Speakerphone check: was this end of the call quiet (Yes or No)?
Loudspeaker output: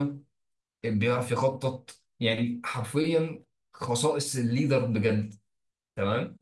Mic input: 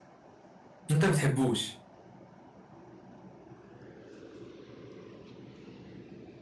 No